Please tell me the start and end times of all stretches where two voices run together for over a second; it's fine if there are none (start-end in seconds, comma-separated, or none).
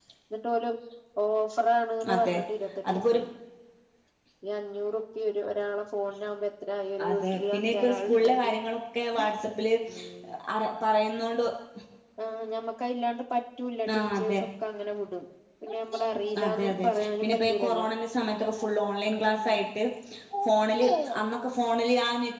7.1-8.5, 16.4-17.9